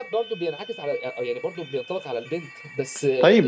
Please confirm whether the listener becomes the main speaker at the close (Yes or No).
Yes